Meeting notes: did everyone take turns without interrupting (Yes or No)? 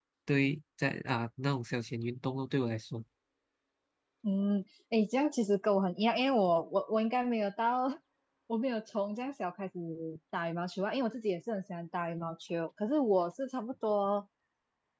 Yes